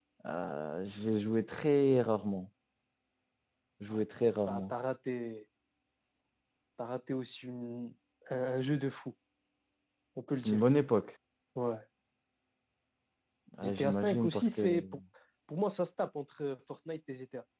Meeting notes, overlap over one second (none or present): present